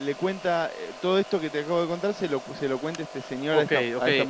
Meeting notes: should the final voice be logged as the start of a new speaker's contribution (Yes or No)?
Yes